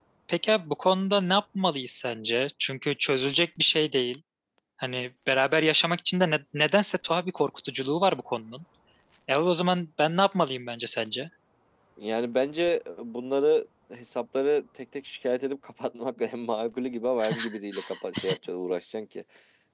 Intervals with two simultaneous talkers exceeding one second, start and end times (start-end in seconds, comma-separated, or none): none